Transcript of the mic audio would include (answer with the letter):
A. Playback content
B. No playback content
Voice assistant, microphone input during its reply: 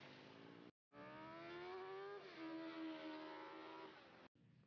B